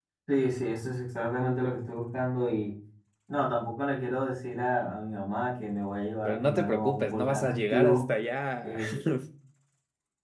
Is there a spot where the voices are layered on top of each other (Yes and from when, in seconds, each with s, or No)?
Yes, from 6.2 s